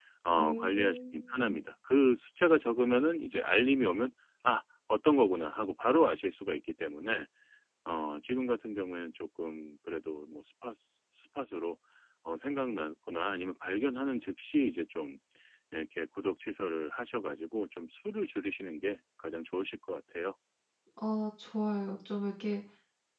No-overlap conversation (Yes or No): No